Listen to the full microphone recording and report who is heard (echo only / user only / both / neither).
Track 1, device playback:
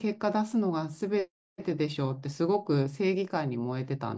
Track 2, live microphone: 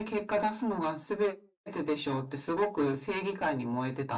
echo only